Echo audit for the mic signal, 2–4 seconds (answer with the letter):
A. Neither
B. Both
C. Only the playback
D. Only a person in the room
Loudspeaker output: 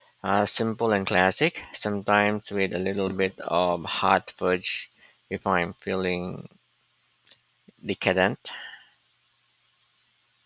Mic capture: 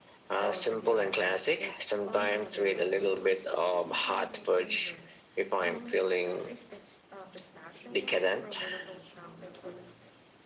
B